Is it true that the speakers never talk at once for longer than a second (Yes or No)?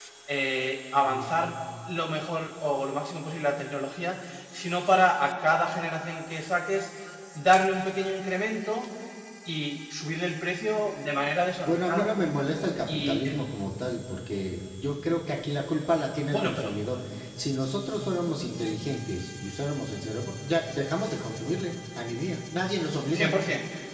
Yes